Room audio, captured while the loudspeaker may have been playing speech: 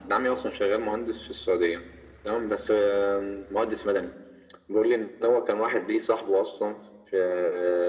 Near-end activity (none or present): none